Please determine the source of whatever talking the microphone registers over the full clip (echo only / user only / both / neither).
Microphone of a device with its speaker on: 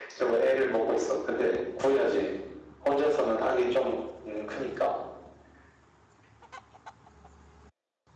echo only